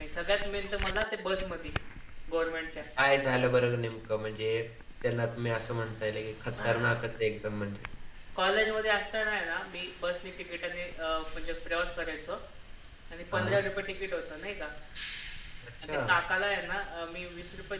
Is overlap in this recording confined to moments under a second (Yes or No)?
Yes